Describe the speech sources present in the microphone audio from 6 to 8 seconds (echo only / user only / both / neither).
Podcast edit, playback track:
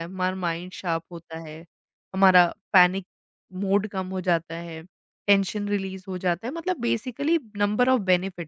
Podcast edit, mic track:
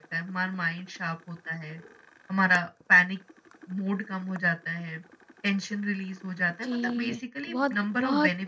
both